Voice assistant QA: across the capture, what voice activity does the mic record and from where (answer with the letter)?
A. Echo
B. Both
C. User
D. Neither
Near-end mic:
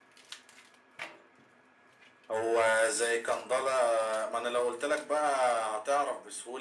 A